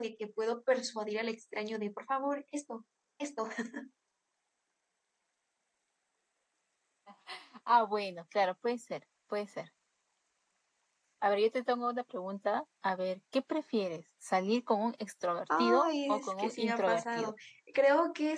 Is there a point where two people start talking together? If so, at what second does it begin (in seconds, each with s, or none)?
15.5 s